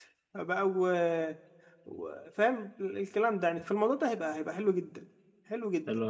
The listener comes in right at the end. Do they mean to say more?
Yes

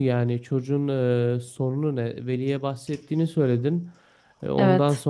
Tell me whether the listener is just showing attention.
Yes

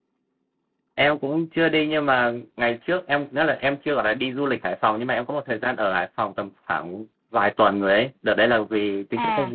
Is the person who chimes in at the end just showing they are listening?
Yes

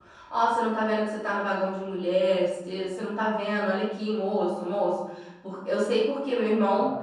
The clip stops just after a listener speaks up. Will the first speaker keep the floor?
No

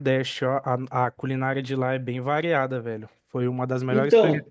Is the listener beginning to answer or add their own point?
No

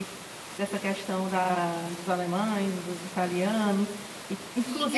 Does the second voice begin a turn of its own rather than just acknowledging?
Yes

